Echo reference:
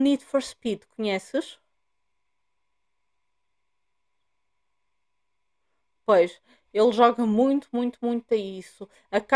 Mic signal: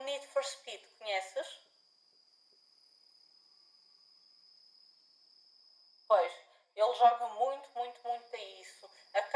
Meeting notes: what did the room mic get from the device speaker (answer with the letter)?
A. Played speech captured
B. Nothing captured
A